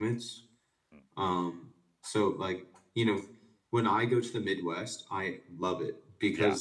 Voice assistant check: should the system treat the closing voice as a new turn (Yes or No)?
No